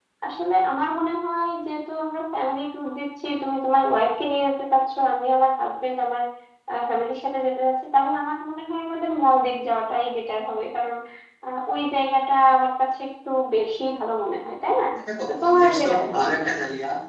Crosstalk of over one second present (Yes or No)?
Yes